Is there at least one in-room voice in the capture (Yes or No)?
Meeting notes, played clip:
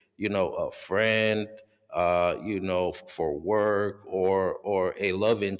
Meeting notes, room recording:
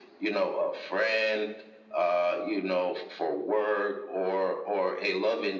No